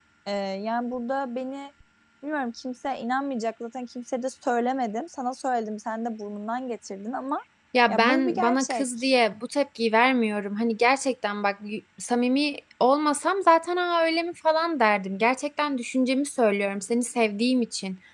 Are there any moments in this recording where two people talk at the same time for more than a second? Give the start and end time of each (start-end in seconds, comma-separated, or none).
7.9-9.1